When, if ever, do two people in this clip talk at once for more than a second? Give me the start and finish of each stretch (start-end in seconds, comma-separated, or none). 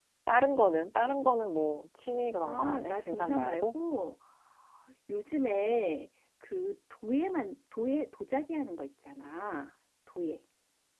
2.5-3.6